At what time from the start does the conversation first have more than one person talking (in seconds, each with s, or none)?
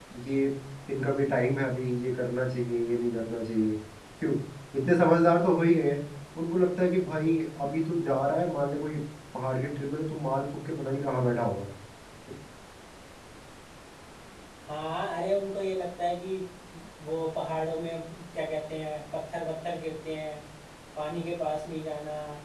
none